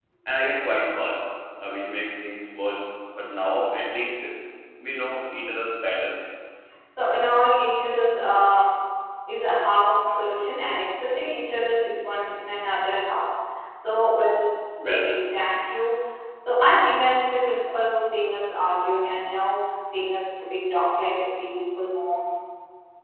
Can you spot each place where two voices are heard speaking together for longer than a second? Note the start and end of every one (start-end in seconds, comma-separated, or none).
none